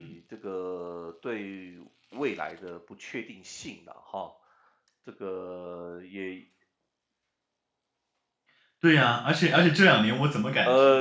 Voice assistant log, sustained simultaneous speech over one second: none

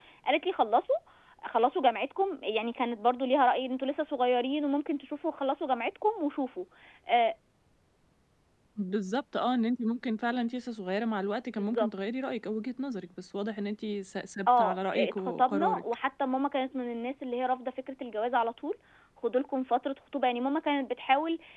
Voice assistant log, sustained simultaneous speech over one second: present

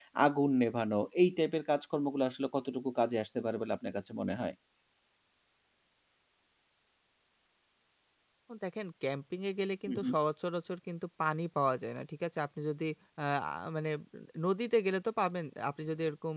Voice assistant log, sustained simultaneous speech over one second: none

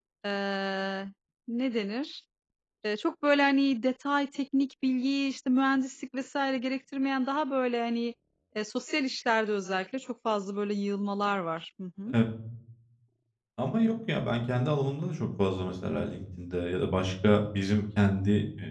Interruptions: none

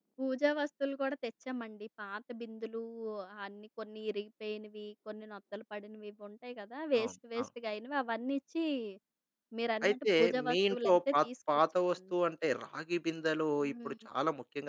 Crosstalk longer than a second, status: present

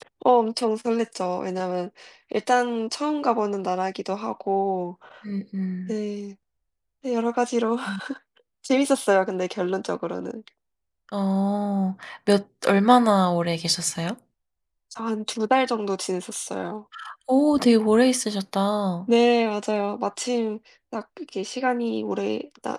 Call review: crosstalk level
none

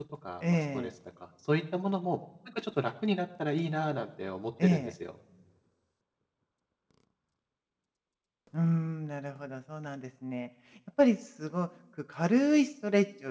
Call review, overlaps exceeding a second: none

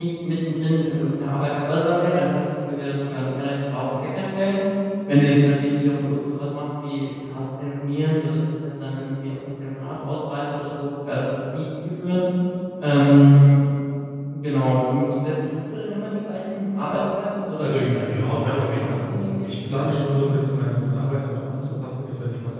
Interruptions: present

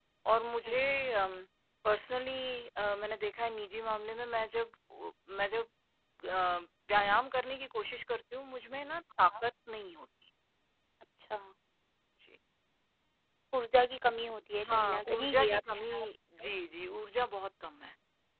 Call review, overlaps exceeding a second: present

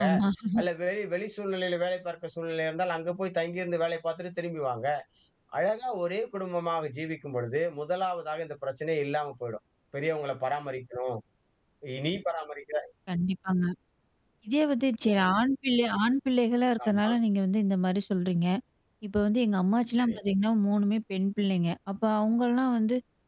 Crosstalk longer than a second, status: none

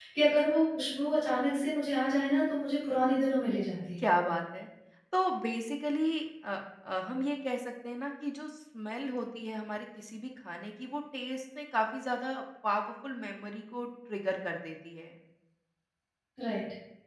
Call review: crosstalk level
none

